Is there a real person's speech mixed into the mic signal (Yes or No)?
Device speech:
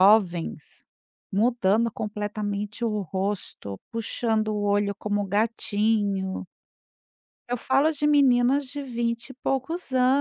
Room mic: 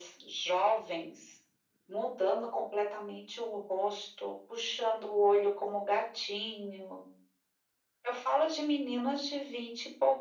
No